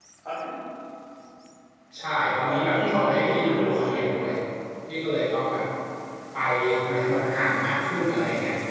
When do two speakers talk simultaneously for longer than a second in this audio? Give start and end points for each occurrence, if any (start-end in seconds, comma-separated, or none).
2.5-4.2